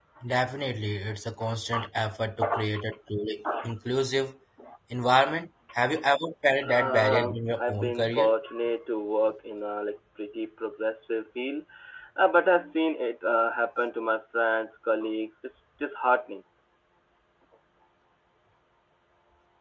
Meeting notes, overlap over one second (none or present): present